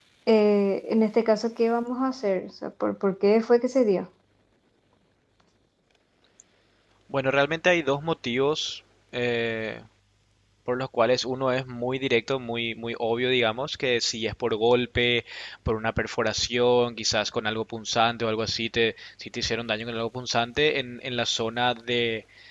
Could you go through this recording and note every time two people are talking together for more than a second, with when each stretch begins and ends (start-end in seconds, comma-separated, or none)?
none